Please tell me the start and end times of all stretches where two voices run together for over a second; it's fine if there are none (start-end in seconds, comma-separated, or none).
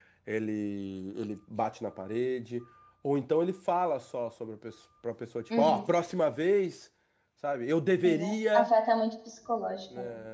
none